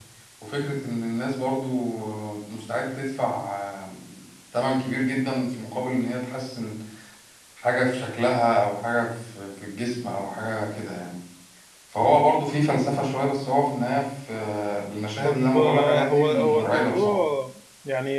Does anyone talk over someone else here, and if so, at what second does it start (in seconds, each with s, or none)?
15.2 s